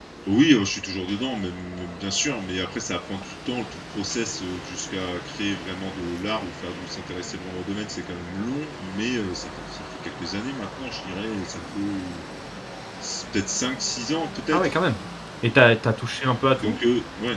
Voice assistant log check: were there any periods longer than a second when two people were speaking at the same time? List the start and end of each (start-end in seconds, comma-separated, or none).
none